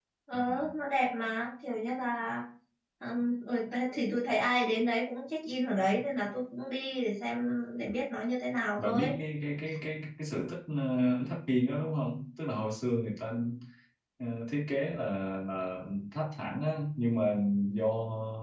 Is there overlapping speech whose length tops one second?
No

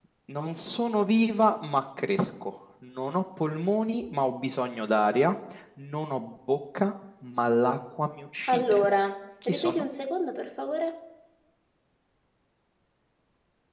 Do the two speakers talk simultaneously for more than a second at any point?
No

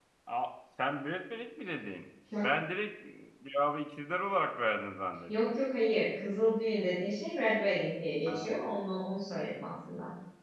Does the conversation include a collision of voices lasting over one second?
No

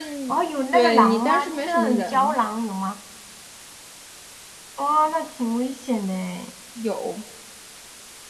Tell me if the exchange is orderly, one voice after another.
No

